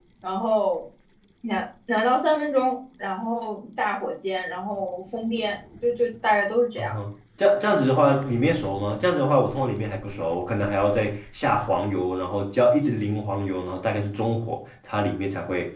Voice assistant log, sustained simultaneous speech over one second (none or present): none